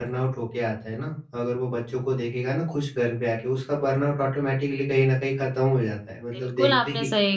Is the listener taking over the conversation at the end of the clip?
Yes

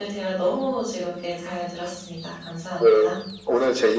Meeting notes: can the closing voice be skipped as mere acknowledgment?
No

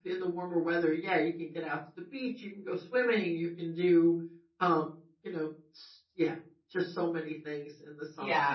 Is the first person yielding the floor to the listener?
Yes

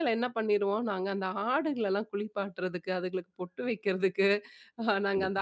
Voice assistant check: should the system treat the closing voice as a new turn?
No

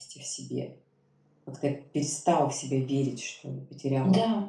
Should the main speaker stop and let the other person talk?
Yes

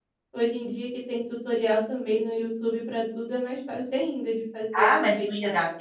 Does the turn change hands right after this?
Yes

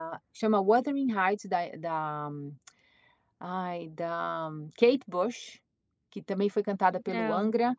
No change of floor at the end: Yes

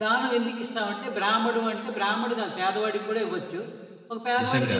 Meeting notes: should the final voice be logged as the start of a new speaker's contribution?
No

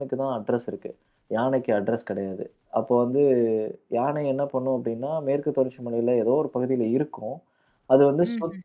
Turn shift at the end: No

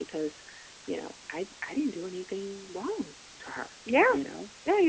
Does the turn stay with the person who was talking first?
No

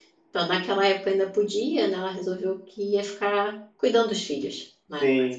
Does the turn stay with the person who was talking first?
No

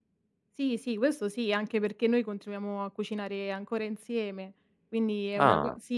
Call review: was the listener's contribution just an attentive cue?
Yes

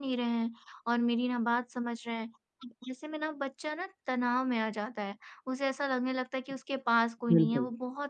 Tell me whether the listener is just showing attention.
Yes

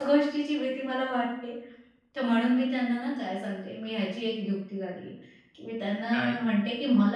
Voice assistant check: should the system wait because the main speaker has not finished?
Yes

